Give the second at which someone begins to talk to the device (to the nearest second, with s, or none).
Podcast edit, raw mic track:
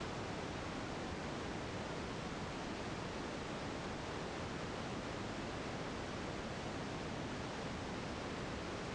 none